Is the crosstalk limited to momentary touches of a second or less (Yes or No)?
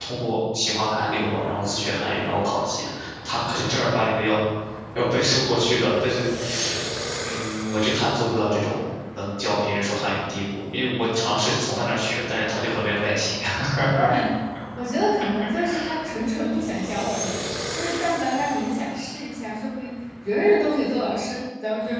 Yes